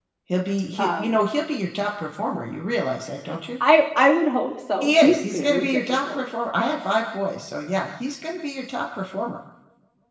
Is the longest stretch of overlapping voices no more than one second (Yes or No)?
No